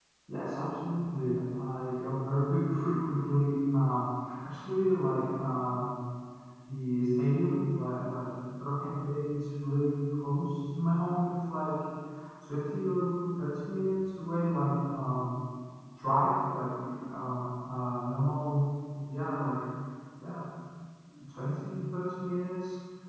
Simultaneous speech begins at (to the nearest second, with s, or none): none